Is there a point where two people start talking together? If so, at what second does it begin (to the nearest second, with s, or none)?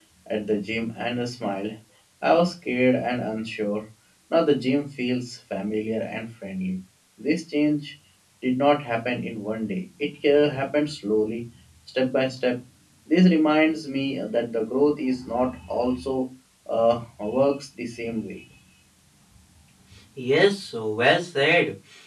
none